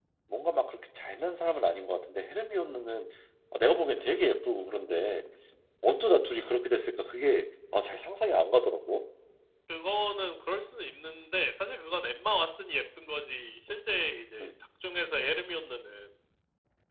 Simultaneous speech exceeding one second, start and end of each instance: none

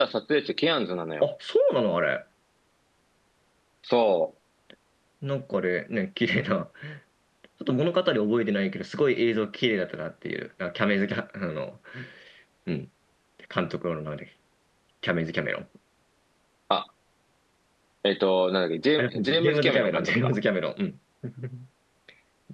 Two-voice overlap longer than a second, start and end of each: 19.0-20.3

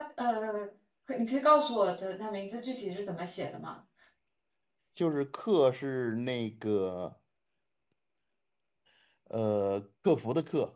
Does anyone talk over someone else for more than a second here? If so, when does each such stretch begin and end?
none

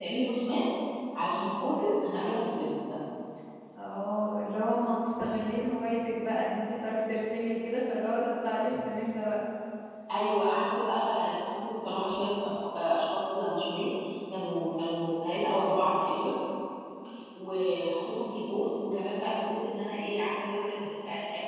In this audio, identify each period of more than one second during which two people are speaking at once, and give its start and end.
none

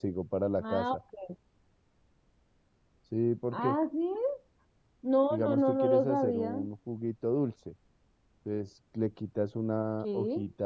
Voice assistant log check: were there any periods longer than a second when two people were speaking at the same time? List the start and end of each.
5.3-6.5

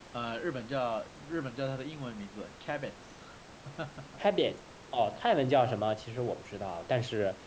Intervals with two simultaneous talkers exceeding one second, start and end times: none

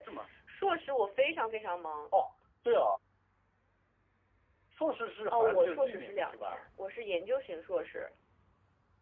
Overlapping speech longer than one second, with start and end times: 5.3-6.6

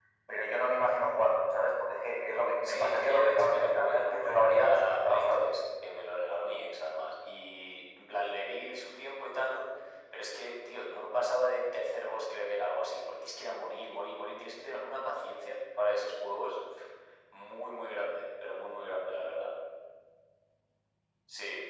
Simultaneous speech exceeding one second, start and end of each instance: 2.6-5.4

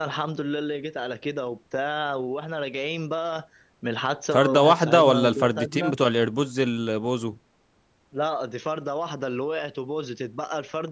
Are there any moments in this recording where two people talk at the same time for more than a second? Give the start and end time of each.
4.3-5.9

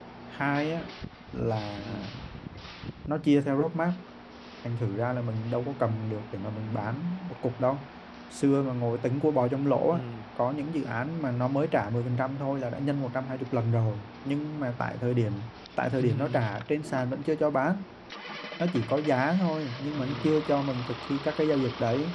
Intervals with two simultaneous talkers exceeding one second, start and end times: none

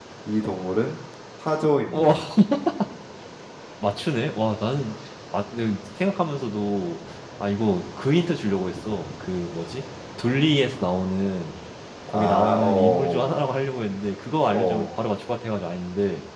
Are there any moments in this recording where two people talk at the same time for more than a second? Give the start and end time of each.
12.1-13.4

